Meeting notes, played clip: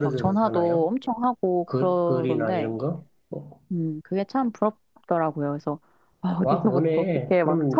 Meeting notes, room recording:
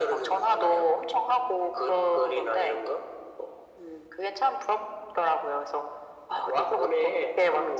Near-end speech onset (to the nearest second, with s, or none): none